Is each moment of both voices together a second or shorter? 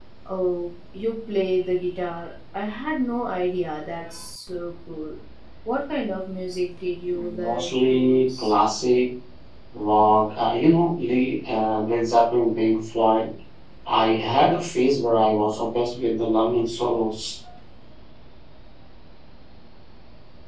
No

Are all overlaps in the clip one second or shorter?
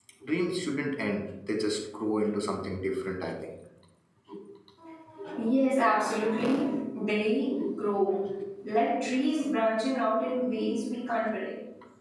Yes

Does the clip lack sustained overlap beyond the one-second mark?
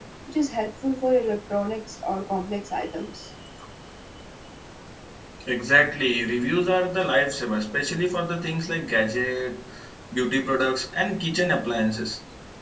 Yes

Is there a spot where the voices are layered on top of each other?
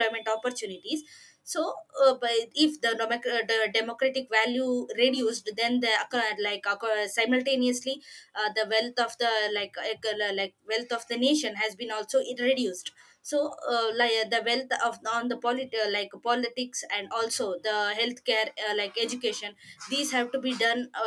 No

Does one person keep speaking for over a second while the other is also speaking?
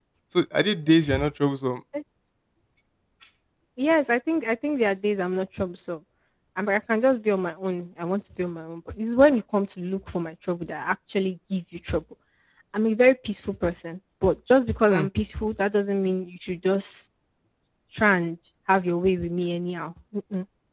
No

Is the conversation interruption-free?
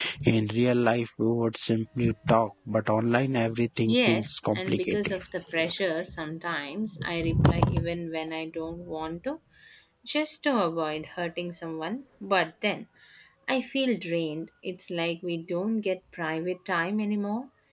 No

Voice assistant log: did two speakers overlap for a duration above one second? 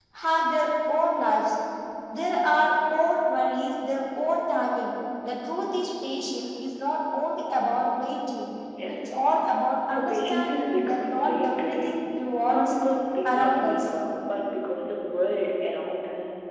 Yes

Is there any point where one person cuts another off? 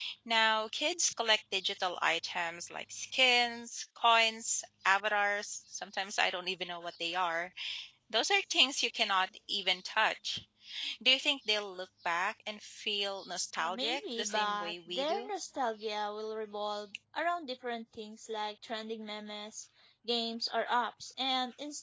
Yes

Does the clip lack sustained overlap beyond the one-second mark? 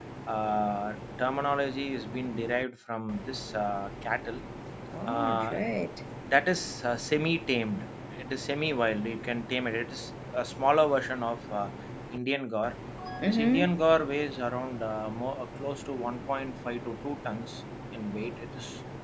Yes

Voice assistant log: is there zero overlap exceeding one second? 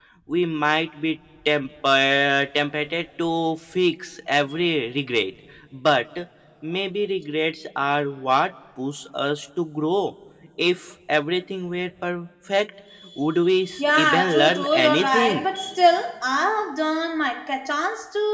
No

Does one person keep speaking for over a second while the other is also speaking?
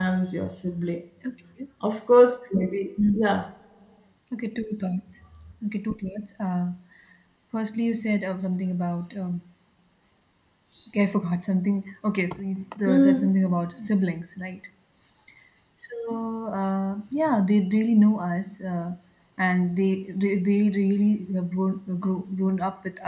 No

